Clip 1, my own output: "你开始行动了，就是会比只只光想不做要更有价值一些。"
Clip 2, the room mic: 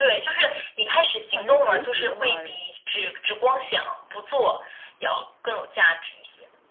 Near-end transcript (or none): 感觉学习的话，